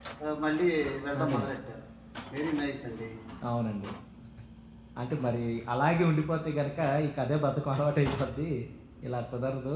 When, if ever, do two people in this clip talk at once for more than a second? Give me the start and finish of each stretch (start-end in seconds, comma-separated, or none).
none